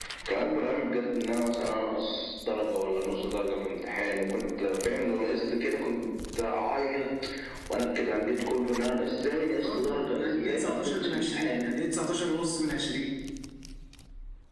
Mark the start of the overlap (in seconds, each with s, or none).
9.6 s